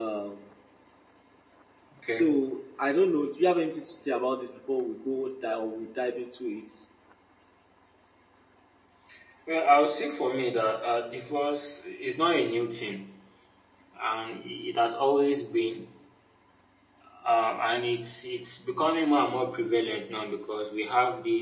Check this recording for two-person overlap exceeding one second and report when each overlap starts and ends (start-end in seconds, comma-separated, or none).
none